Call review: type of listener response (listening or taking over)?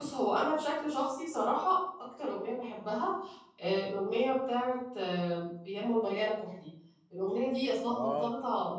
listening